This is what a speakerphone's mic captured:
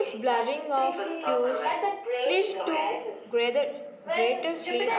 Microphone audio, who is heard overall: both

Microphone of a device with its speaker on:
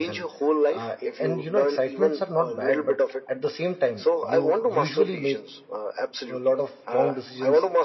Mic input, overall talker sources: both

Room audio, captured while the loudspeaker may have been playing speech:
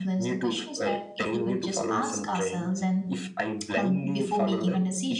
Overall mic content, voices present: both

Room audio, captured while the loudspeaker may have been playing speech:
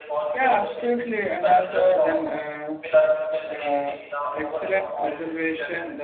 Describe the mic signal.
both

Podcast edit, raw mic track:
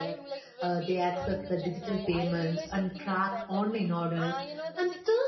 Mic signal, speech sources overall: both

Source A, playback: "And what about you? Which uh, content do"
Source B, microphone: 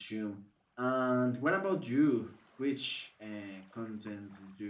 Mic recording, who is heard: echo only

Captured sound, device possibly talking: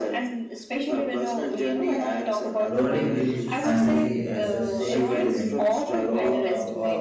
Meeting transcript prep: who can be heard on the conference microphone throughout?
both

